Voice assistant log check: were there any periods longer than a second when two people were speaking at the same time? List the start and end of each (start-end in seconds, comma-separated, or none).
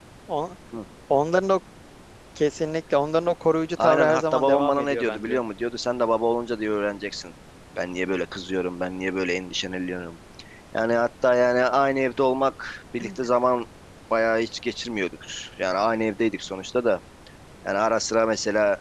3.8-5.4